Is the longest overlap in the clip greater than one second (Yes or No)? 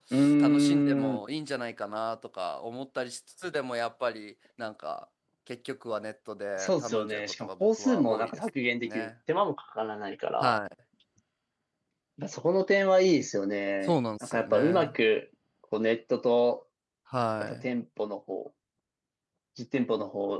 Yes